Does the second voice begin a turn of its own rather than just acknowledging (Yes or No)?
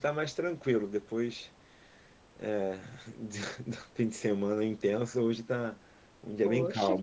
Yes